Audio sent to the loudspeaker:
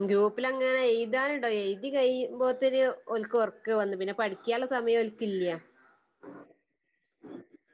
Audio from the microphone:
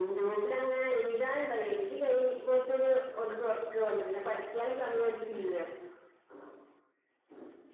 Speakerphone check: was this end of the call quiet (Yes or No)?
Yes